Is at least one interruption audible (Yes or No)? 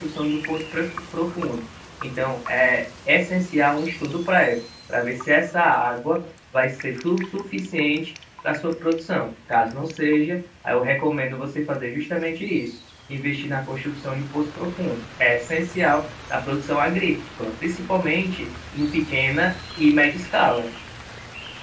No